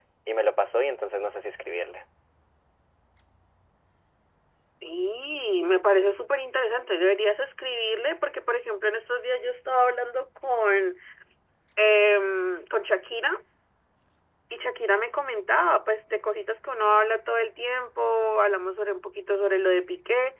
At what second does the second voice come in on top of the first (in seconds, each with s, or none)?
none